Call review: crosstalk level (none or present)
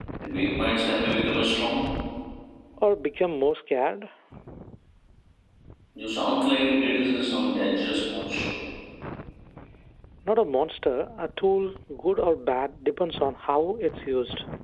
none